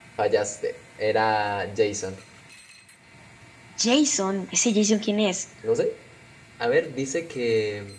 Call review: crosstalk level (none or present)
none